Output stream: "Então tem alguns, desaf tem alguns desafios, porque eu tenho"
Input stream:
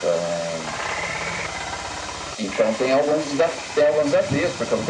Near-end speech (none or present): none